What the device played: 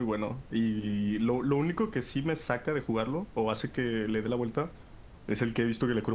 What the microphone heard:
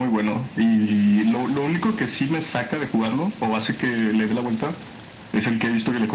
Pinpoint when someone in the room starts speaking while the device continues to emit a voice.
none

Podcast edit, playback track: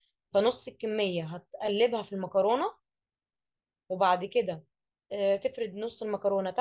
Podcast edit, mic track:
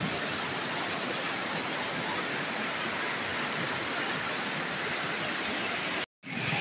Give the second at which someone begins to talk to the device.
none

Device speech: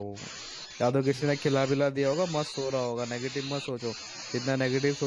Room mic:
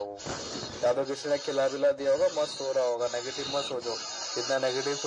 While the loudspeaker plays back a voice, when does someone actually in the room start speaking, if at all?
none

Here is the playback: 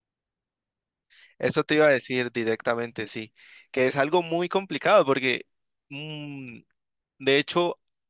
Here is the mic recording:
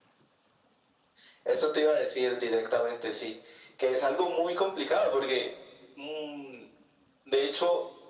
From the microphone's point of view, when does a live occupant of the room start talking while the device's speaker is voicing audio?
none

